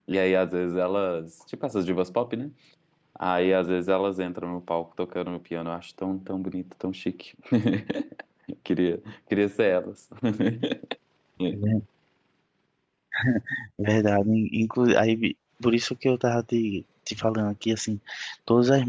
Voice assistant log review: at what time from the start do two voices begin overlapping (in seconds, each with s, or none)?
none